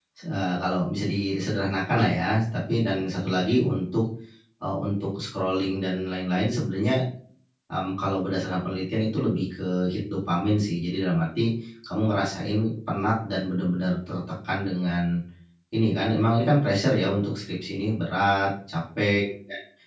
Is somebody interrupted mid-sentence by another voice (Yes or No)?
No